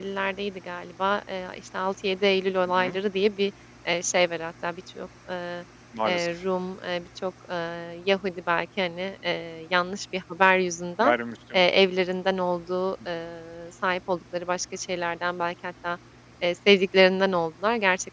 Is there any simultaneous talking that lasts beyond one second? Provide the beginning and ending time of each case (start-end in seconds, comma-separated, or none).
none